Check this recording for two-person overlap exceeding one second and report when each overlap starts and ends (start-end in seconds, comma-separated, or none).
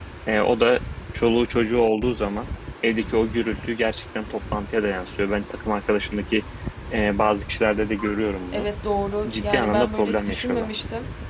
9.3-10.7